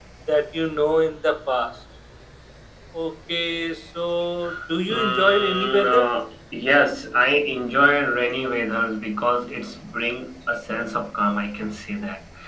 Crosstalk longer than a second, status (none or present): present